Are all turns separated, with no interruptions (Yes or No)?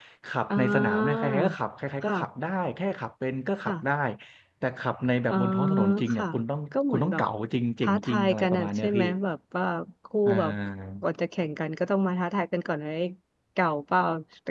No